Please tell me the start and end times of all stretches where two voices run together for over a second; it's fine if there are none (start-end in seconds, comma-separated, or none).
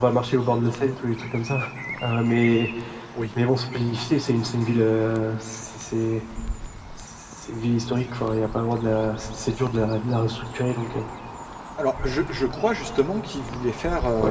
none